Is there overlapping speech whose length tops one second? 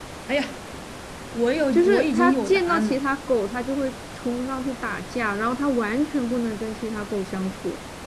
Yes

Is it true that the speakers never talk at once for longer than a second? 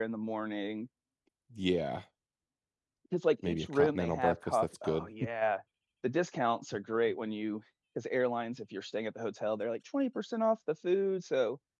No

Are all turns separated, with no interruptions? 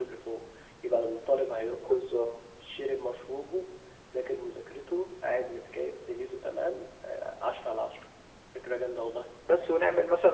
Yes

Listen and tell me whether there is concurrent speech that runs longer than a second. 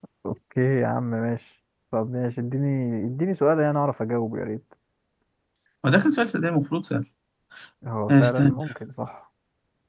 No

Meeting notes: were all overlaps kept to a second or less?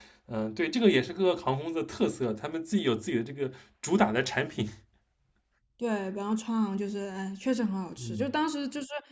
Yes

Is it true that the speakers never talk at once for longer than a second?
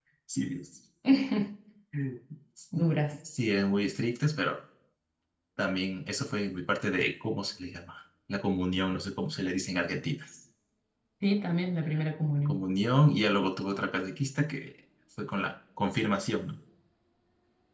Yes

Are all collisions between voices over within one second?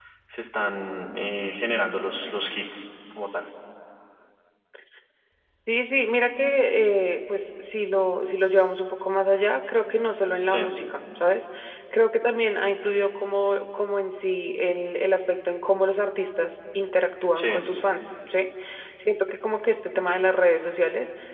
Yes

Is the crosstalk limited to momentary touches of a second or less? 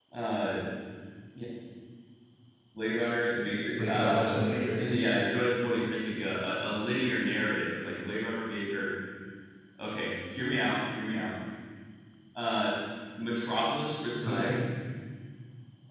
No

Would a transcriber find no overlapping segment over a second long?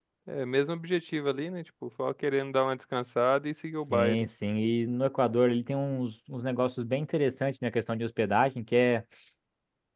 Yes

